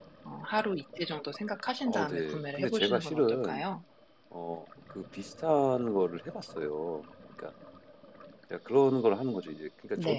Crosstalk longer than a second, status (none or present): present